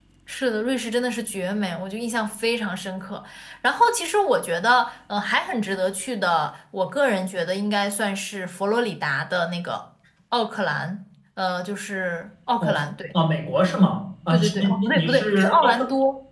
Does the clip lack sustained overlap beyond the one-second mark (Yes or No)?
No